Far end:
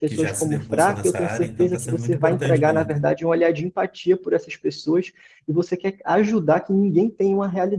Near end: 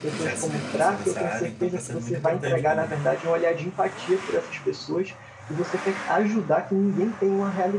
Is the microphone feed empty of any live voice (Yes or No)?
Yes